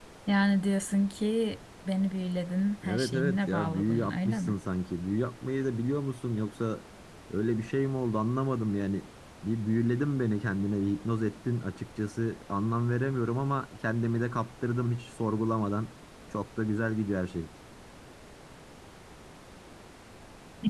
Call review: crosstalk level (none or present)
present